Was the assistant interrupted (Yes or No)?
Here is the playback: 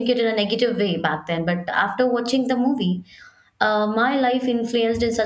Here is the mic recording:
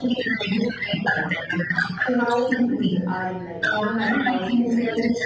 Yes